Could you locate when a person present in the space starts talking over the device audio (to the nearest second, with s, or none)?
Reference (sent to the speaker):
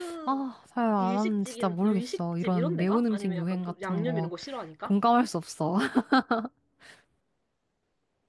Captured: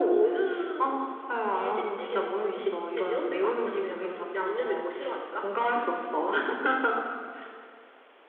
none